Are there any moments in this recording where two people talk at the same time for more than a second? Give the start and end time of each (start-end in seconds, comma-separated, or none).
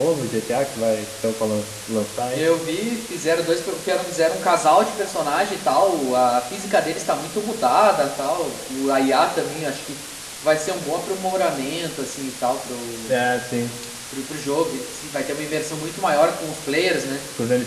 none